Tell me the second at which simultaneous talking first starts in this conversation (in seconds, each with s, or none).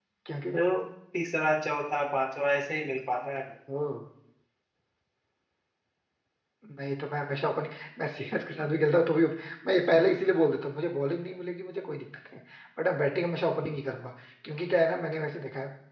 none